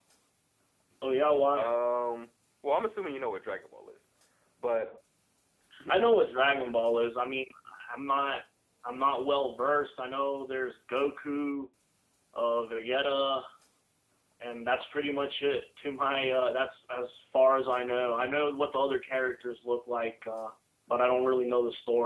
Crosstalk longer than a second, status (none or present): none